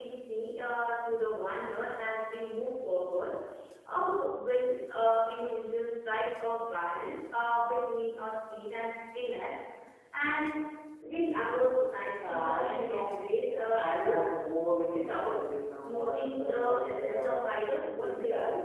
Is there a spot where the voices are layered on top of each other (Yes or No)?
Yes